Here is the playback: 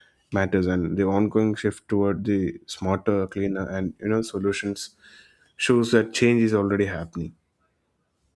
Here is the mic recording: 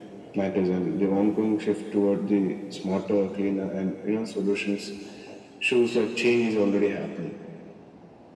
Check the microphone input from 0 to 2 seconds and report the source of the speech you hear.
echo only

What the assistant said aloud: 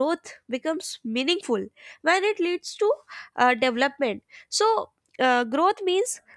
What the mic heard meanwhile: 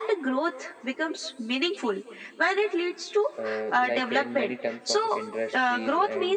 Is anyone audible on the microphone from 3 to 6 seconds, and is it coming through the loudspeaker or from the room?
both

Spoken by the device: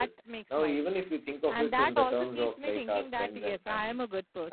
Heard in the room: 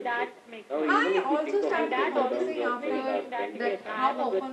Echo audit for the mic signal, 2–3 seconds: both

